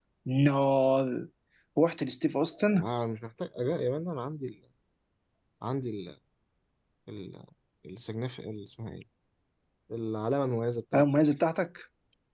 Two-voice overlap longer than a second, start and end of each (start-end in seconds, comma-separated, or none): none